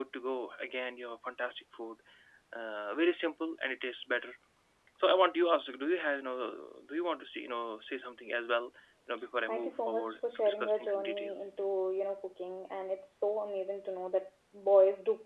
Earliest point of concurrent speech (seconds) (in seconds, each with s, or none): 9.5 s